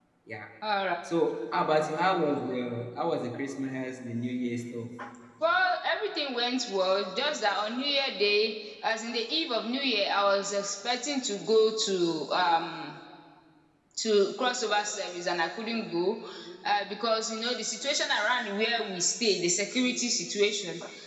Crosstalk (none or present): none